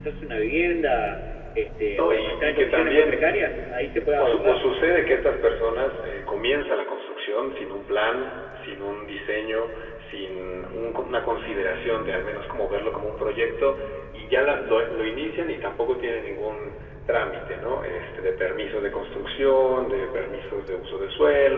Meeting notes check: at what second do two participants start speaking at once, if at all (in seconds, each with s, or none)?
2.0 s